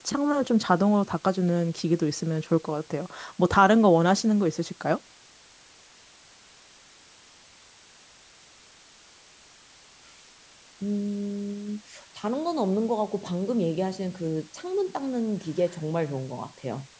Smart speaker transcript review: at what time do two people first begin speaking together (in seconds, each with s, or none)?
none